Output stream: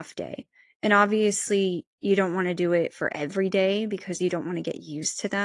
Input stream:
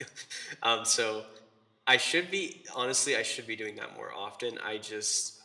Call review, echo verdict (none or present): none